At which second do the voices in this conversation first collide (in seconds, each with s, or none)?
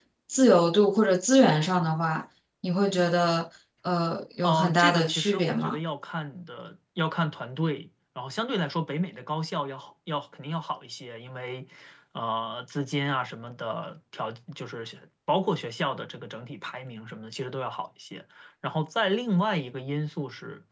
4.4 s